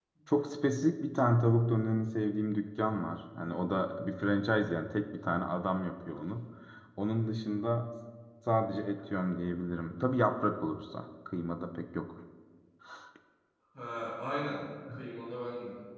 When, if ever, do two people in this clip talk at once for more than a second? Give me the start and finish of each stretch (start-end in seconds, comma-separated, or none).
none